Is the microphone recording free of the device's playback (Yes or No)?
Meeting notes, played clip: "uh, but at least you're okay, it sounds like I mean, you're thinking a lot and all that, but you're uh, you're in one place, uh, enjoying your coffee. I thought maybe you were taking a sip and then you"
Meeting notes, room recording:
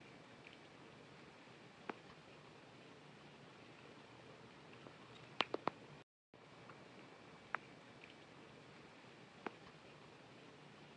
Yes